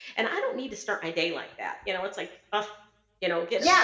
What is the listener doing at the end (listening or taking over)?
taking over